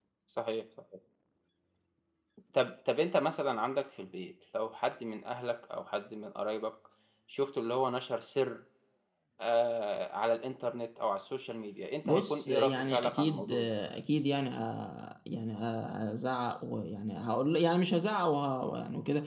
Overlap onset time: 12 s

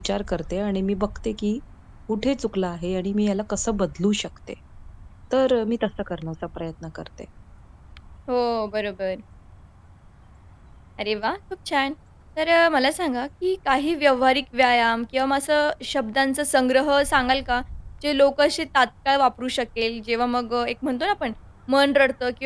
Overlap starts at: none

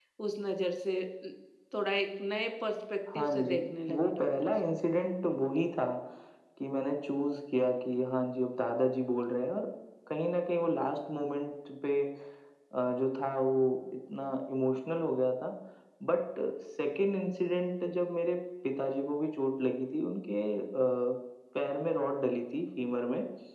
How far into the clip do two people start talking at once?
3 s

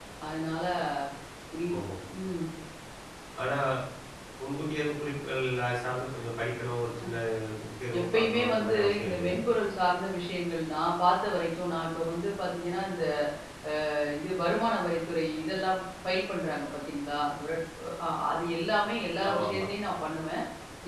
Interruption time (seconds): 8 s

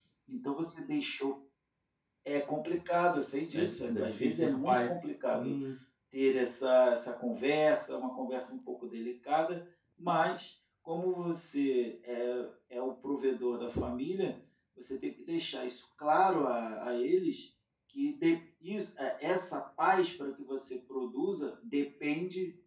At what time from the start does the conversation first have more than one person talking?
4 s

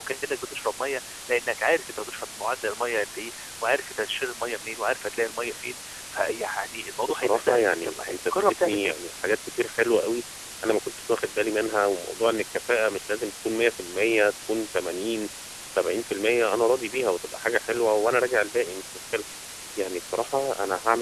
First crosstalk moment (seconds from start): 7 s

